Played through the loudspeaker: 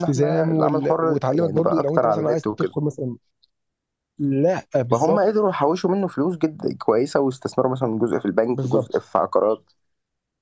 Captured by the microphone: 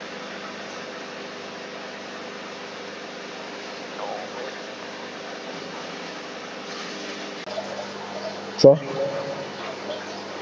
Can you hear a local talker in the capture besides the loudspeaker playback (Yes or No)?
Yes